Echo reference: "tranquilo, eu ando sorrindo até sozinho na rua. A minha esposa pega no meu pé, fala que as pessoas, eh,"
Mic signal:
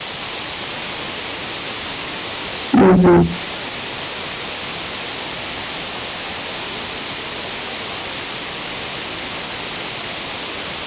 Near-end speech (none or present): present